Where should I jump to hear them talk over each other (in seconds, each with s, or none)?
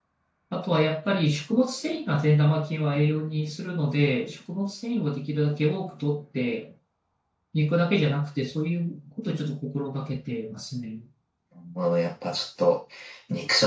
none